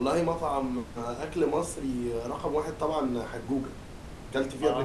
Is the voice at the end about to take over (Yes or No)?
Yes